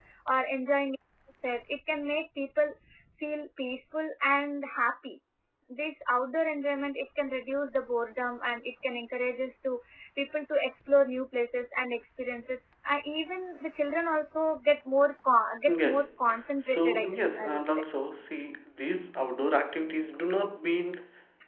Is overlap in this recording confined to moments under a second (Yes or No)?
No